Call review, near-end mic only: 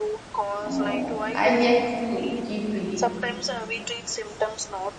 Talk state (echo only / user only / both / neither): both